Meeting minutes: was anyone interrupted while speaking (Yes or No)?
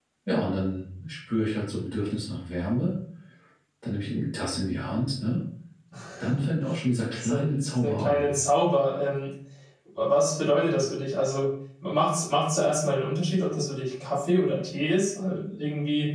Yes